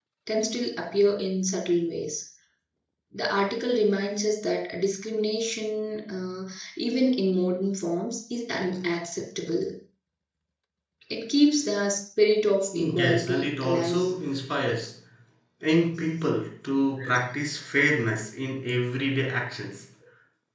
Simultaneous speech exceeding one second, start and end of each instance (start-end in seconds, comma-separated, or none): 12.7-14.0